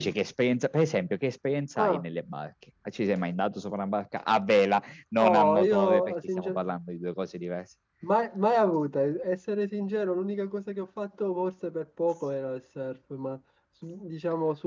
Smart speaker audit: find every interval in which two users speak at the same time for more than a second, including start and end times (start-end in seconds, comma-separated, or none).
5.2-6.6